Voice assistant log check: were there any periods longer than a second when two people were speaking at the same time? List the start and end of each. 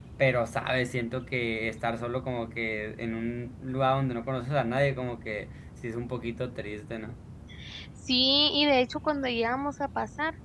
none

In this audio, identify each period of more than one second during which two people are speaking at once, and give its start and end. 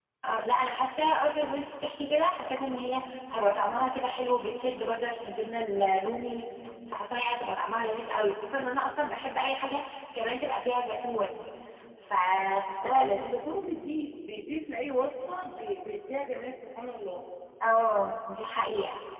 none

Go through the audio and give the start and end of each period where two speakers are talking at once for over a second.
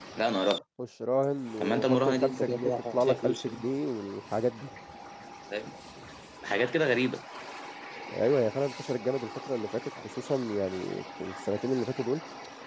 1.6-3.6

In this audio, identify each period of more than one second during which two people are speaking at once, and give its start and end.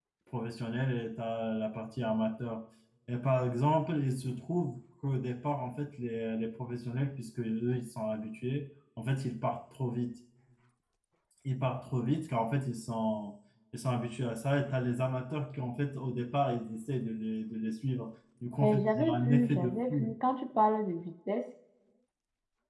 18.6-20.1

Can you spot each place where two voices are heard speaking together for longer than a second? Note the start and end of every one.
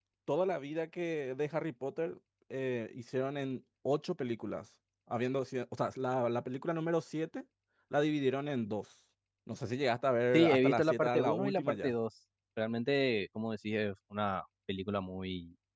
10.3-11.9

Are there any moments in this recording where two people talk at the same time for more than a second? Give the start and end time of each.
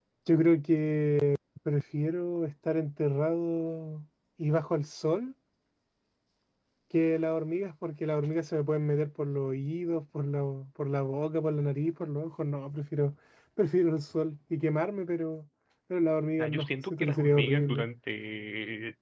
16.4-17.9

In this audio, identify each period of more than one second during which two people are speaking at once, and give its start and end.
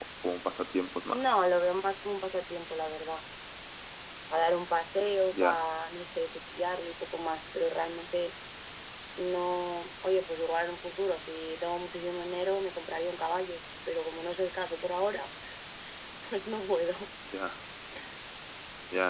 none

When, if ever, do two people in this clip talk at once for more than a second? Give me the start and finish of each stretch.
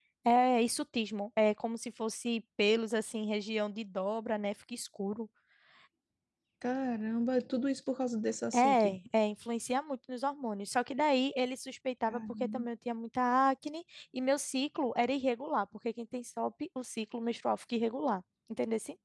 none

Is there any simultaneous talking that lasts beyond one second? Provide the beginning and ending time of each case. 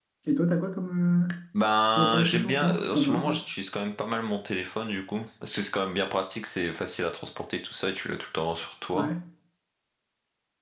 2.0-3.4

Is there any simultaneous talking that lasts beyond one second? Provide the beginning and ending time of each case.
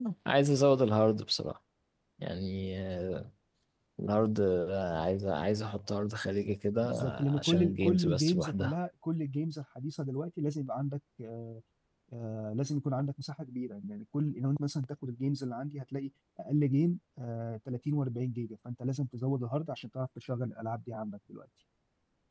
6.8-8.7

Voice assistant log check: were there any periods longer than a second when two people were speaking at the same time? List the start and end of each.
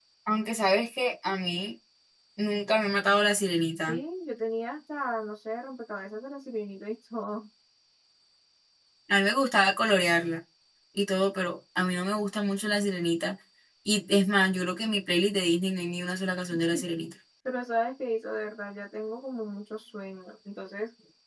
none

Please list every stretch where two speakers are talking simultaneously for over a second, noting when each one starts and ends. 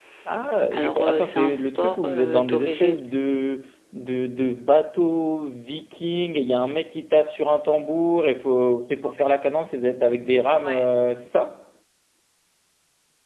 0.7-3.0

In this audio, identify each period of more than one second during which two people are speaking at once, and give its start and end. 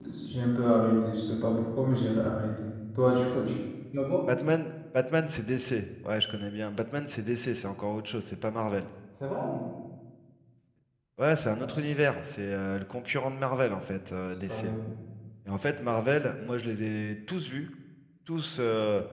none

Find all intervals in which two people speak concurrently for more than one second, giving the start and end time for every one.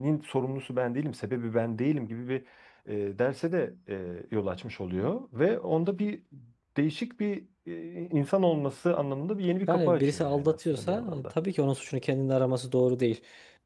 9.7-11.3

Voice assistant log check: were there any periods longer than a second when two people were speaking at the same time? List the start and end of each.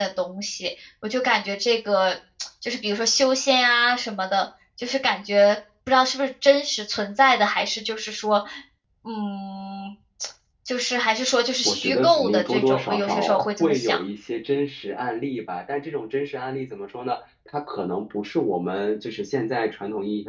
11.6-14.0

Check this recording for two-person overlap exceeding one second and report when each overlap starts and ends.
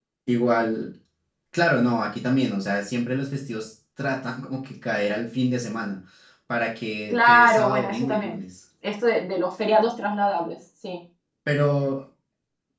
7.1-8.4

